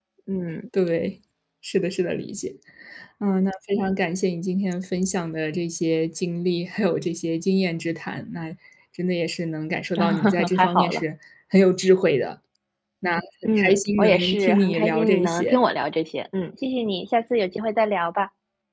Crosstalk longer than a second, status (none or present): present